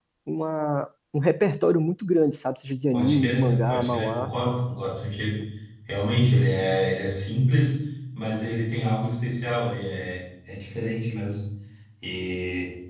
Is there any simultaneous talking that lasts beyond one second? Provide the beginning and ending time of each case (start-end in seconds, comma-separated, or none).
2.9-4.3